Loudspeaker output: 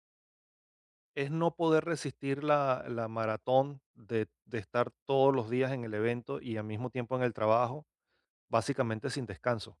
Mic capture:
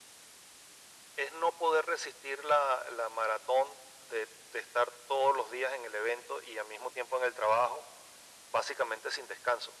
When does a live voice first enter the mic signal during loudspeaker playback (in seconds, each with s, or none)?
none